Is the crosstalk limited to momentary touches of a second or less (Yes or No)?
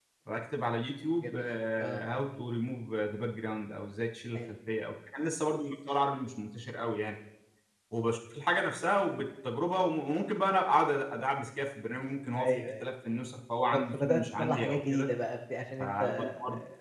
No